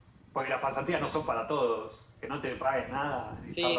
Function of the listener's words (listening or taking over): taking over